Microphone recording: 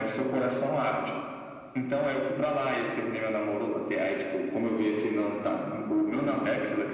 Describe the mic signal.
echo only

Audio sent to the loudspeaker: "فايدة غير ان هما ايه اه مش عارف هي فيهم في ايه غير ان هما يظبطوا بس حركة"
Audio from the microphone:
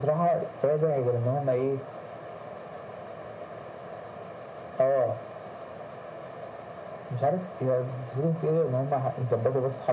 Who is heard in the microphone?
echo only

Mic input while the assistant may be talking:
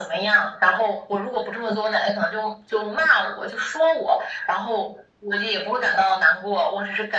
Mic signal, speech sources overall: echo only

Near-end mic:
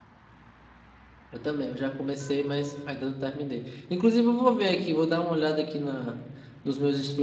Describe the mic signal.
user only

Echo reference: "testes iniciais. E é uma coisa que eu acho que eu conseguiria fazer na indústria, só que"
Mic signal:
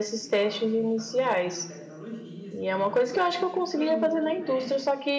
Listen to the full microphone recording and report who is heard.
both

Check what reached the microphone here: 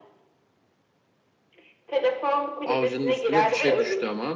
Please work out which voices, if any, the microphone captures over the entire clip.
both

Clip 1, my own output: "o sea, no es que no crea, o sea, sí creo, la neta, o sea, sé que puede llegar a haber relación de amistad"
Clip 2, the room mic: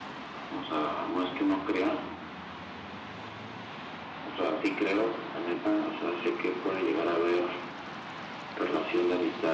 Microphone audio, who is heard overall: echo only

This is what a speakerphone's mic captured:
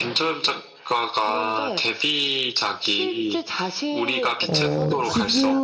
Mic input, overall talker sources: both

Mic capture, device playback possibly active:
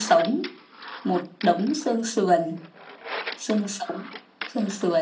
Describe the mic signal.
echo only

